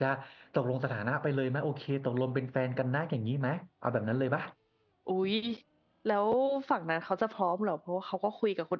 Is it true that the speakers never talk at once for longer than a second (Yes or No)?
Yes